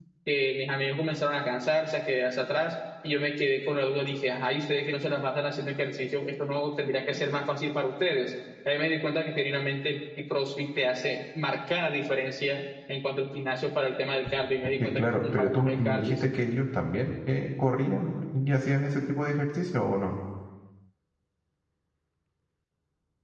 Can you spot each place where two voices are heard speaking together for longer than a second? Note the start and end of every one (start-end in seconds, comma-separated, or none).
14.8-16.4